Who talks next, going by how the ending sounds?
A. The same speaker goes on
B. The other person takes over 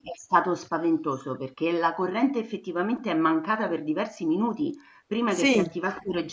A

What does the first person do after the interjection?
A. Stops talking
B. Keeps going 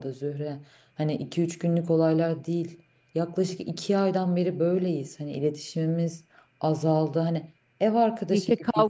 A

